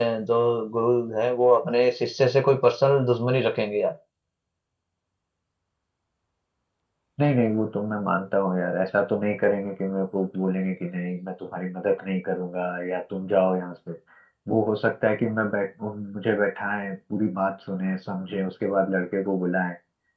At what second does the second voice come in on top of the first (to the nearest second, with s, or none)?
none